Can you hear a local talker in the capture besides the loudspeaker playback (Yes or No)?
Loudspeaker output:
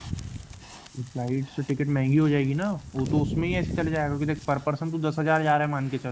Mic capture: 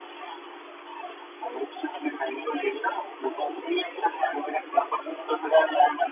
No